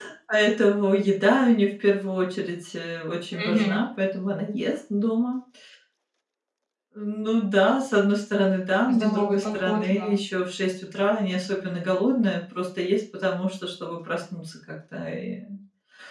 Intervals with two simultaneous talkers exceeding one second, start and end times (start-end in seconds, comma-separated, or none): 8.9-10.2